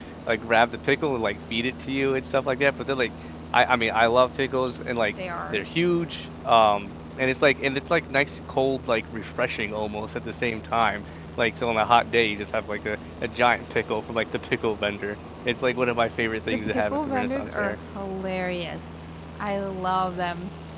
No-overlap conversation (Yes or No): No